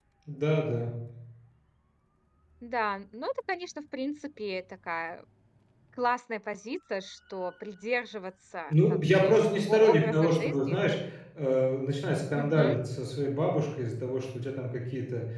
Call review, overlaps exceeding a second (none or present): present